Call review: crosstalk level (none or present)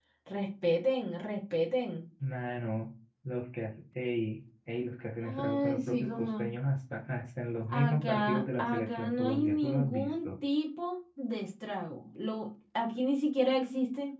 present